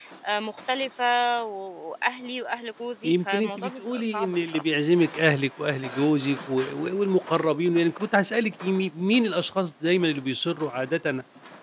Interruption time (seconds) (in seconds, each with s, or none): 3.0 s